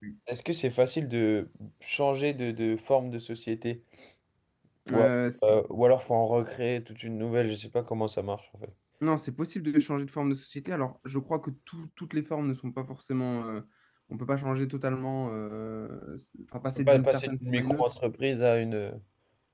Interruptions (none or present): present